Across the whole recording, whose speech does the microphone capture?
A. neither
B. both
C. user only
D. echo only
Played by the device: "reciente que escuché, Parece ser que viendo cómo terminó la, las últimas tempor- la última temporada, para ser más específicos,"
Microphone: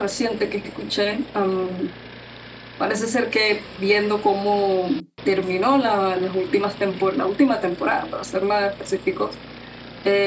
D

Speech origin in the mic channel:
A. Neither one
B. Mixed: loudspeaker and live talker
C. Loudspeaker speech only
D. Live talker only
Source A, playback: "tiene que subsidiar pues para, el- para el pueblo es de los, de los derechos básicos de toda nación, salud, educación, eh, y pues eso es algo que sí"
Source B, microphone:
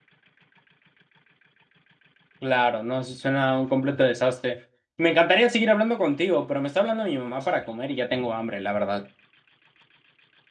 D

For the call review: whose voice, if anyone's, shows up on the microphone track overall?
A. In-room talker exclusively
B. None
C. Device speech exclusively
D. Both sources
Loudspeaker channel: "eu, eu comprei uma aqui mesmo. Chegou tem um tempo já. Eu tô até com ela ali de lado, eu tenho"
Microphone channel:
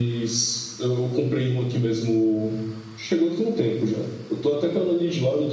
C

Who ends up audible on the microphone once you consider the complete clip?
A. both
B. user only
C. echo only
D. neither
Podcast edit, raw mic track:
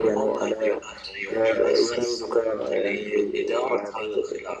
C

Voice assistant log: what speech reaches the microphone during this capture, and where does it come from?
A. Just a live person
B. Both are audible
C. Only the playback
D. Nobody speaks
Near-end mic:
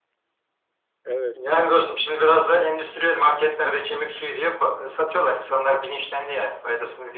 B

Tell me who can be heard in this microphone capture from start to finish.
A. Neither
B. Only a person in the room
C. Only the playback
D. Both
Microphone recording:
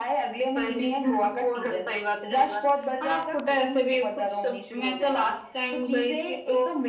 C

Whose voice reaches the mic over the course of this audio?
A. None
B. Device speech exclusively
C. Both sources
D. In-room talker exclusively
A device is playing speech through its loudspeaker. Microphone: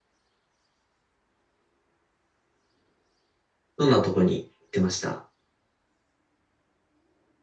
D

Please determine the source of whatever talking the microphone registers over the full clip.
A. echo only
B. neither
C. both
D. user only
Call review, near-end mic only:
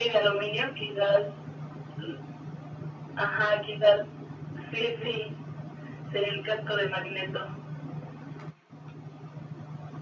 A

